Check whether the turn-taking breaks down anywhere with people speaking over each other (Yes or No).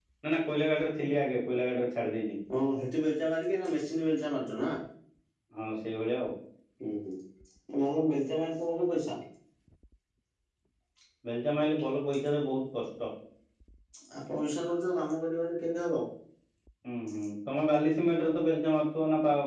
No